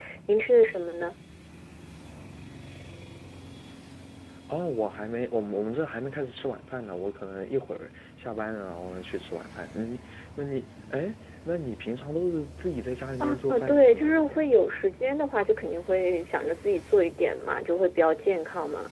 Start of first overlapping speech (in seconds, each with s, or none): 13.2 s